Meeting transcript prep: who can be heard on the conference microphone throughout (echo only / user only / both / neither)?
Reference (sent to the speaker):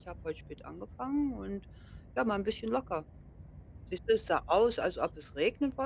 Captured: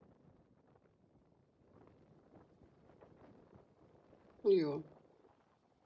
user only